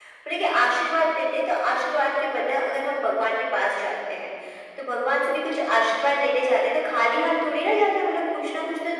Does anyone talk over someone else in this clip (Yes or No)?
No